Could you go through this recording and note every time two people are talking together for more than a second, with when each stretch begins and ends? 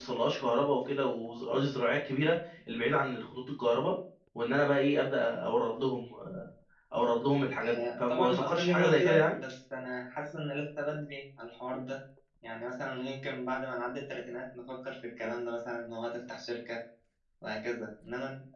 7.6-9.4

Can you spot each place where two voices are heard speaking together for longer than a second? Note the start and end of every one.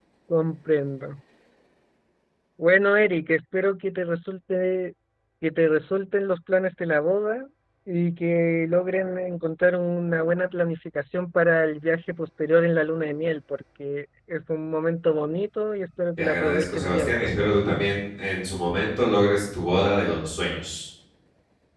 16.2-17.5

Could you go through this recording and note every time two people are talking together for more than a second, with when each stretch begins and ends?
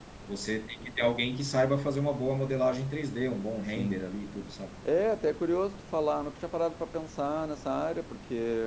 none

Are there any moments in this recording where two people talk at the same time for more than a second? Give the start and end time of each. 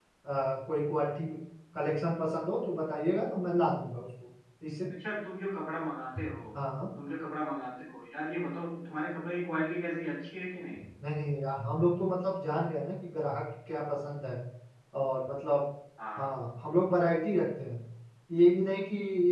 none

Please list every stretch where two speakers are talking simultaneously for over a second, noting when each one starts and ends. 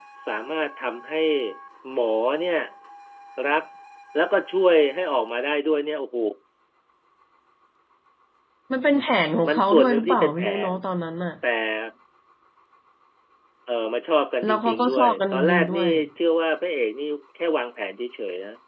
9.5-10.7, 14.4-15.9

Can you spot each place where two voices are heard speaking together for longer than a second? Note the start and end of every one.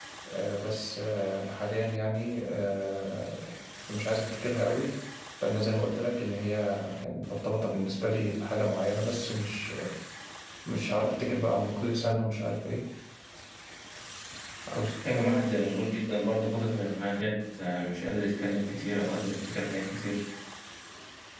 none

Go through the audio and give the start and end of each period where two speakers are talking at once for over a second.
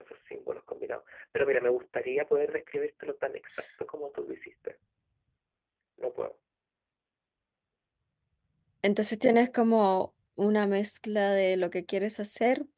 none

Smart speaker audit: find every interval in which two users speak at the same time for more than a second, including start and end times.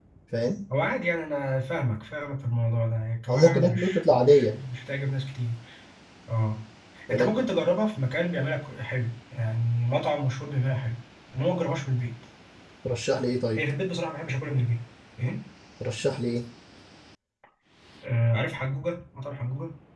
3.3-4.5

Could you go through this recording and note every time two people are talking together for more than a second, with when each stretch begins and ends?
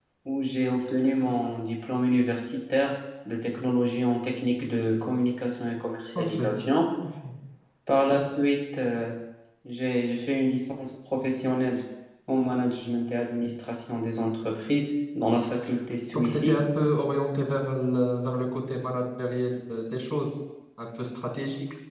none

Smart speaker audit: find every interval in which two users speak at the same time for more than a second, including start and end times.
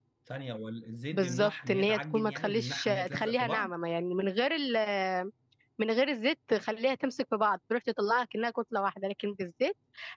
1.1-3.7

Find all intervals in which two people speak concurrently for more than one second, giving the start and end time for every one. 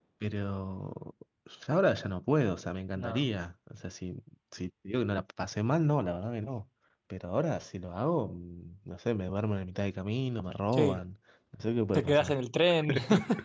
none

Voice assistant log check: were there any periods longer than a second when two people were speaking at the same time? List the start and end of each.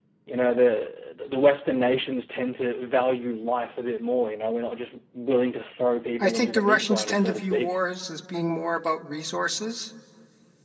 6.2-7.8

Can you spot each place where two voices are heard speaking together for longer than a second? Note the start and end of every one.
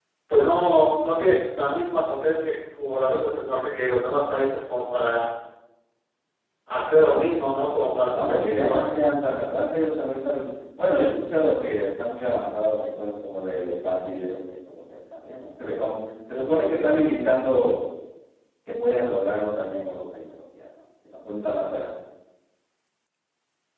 7.6-8.8

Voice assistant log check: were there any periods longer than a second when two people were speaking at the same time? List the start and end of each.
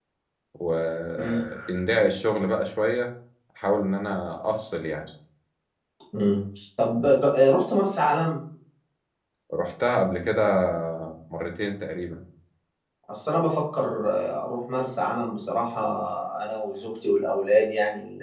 none

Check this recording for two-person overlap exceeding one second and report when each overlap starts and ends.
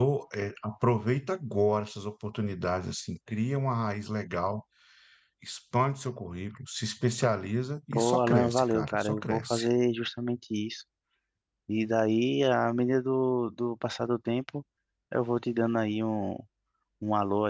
7.9-9.7

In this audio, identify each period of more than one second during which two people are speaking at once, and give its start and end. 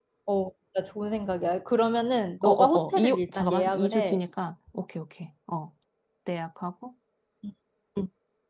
2.4-4.2

